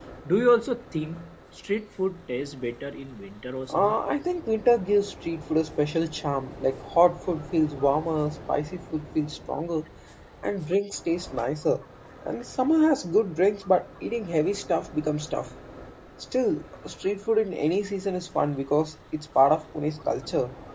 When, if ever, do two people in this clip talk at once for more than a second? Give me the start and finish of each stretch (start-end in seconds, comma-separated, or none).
none